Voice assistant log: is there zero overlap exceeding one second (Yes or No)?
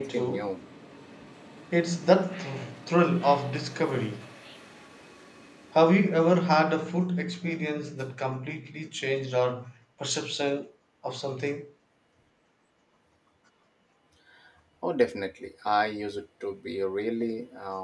Yes